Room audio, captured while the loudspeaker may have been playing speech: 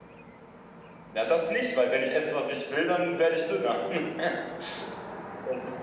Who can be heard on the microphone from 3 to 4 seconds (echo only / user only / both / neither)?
echo only